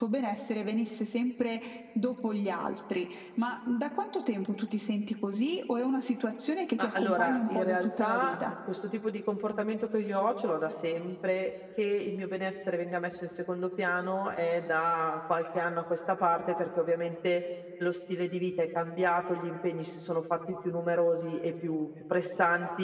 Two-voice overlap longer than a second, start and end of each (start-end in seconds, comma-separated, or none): 6.8-8.4